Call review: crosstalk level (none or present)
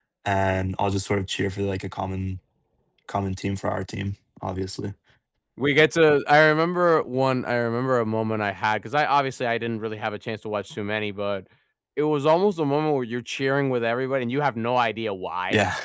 none